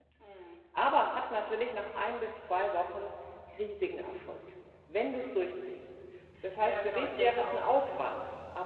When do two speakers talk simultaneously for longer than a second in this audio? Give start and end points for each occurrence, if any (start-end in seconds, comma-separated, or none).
6.6-8.0